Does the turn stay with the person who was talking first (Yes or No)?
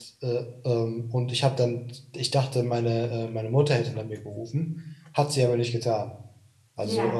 Yes